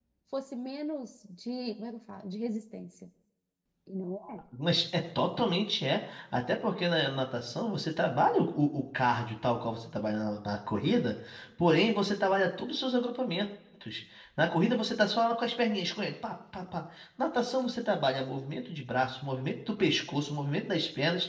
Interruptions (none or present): none